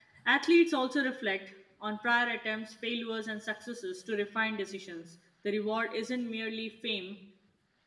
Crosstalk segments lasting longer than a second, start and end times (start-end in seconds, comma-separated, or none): none